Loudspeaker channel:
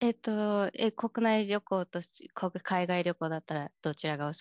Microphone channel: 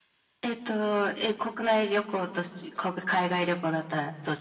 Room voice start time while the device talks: none

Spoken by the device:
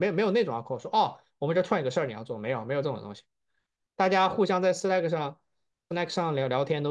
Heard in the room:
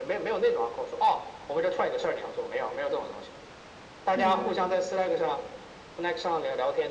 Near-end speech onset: 4.2 s

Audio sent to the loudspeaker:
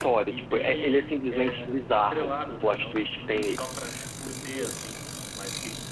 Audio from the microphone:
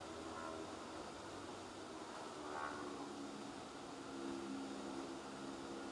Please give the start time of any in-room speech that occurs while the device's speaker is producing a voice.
none

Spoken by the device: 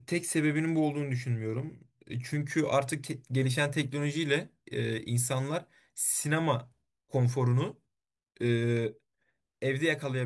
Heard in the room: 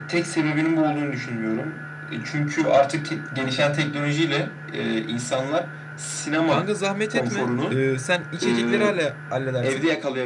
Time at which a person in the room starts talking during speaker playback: 6.4 s

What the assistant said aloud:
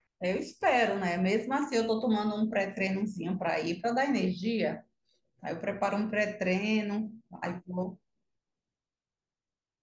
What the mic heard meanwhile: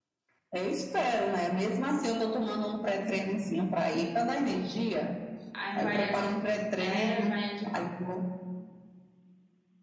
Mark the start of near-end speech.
5.5 s

